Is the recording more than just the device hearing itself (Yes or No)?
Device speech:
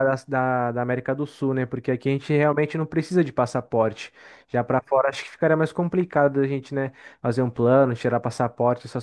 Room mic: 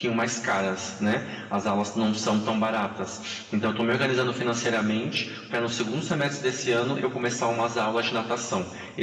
Yes